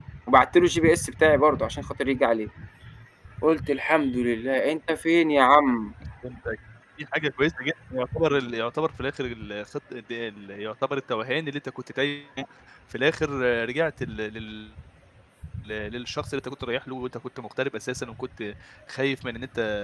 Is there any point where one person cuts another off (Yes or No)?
No